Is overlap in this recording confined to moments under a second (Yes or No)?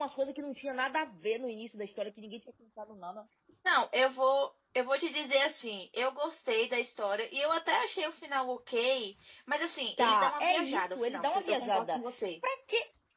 No